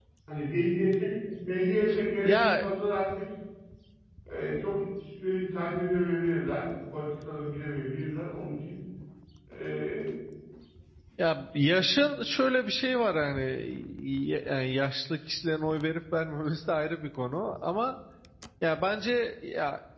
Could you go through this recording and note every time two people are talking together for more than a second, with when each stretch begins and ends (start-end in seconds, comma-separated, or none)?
none